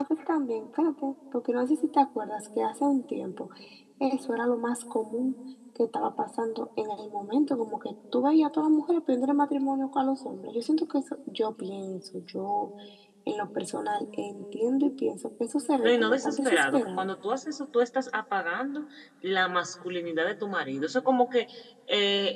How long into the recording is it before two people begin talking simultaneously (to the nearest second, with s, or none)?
16 s